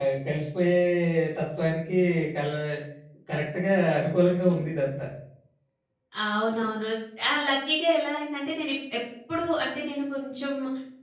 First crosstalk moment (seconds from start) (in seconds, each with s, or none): none